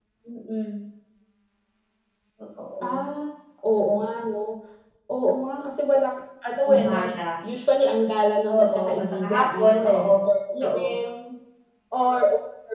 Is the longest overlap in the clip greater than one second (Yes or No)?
Yes